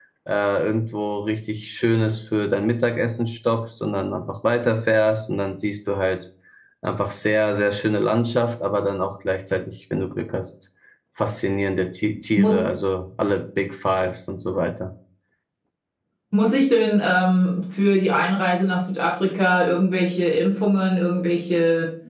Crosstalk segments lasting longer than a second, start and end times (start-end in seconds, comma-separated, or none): none